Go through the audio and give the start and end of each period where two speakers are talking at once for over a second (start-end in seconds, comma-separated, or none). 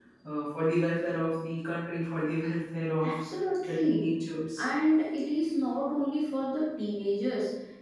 none